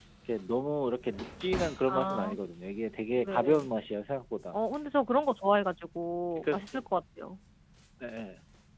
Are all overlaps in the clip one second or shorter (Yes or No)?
Yes